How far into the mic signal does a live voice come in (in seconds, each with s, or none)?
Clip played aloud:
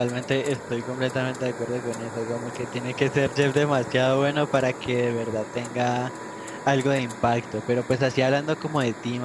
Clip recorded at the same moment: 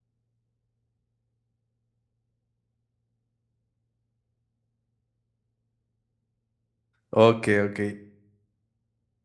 7.1 s